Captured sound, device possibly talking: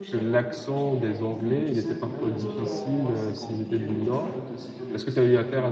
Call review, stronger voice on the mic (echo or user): user